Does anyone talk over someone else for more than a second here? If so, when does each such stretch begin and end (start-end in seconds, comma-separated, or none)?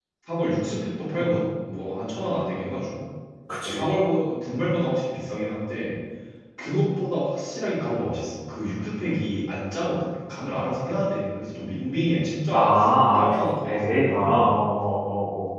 13.2-14.6